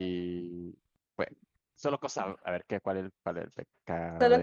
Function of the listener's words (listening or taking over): listening